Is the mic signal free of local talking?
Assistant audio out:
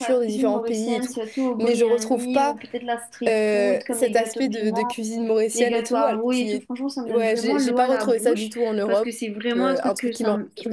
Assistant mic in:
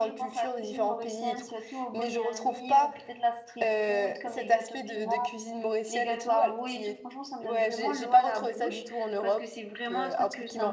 Yes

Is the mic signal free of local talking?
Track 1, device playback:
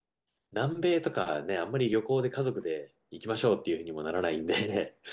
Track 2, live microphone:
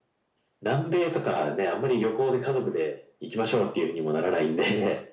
Yes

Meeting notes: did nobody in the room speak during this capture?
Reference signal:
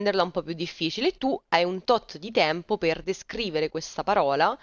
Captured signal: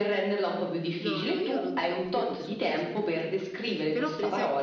No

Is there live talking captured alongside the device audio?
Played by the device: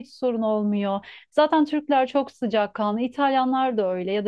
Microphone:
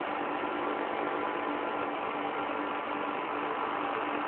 No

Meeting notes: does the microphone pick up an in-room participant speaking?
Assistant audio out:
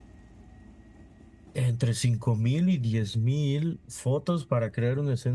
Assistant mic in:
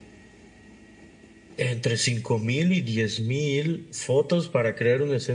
No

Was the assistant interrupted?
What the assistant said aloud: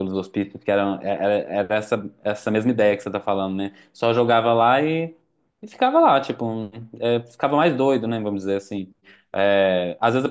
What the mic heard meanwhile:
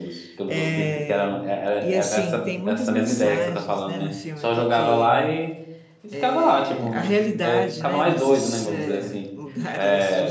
Yes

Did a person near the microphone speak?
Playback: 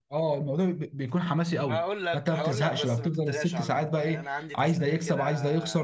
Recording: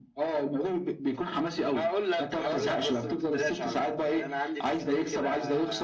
No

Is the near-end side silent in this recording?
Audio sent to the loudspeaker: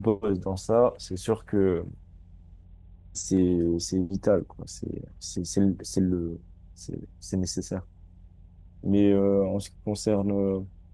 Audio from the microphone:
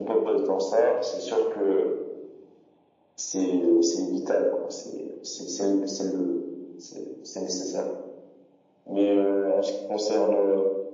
Yes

